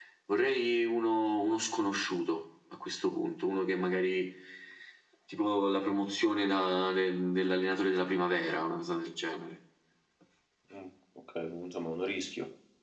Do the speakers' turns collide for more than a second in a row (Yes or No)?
No